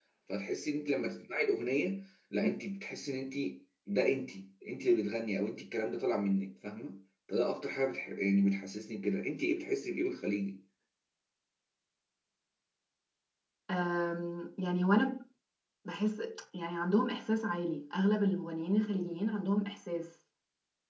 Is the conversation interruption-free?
Yes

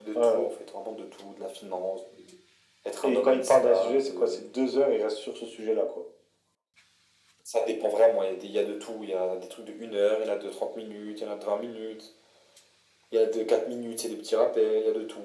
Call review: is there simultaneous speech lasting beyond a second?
Yes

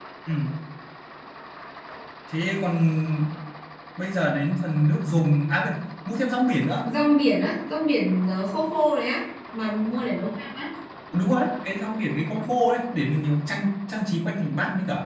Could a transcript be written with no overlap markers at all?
Yes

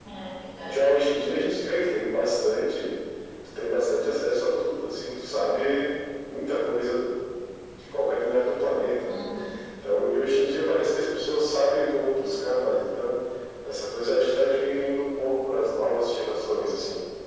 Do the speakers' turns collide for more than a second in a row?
No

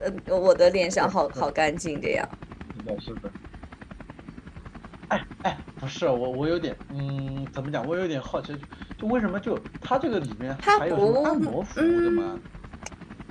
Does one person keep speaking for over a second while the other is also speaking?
Yes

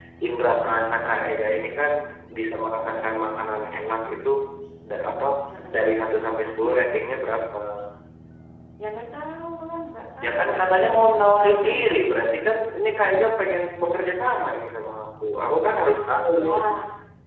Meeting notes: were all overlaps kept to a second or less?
No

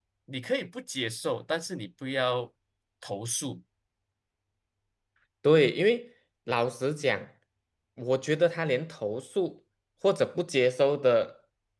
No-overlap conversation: Yes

